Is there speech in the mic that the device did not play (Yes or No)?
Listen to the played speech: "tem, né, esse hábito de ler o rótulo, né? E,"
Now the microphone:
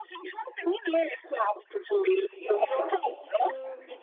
Yes